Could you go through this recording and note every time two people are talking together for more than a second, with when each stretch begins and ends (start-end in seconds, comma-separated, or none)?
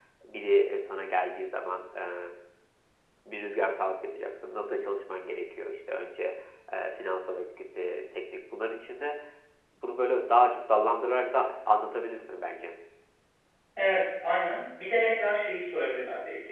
none